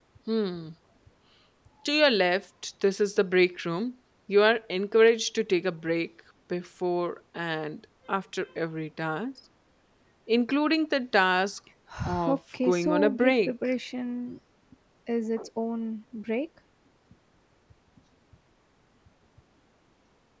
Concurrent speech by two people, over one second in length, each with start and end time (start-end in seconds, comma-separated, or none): 12.3-13.5